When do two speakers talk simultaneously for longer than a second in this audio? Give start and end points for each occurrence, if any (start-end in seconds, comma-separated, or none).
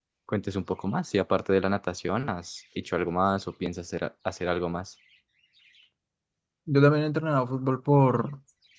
none